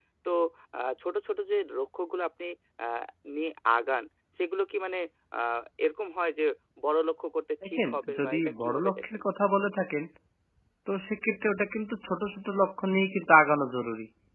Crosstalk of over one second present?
Yes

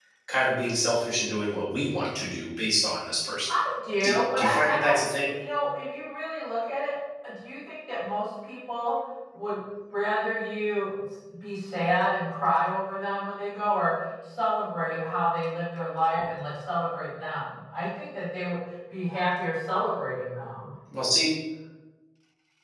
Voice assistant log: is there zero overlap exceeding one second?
No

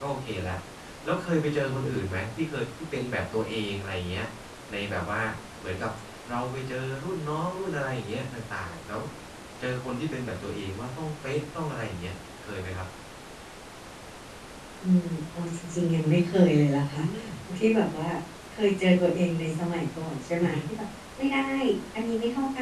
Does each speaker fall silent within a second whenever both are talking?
Yes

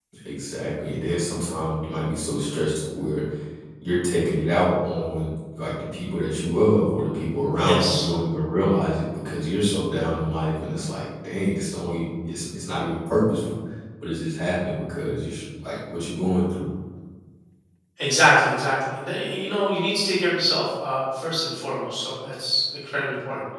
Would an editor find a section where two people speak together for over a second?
No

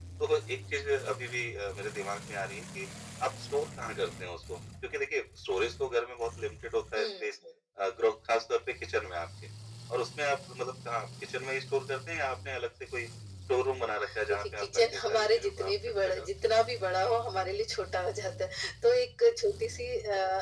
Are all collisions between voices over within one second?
No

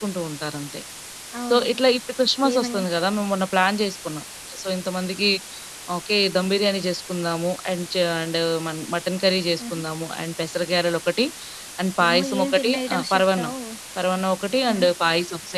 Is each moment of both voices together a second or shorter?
No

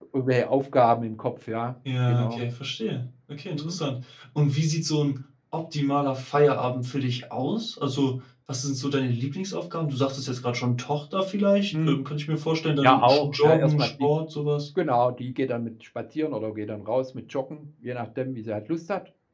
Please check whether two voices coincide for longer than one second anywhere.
Yes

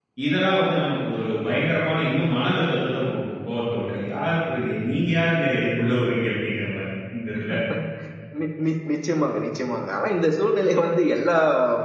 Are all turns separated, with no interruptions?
Yes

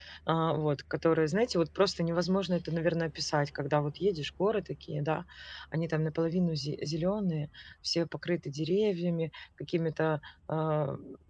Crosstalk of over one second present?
No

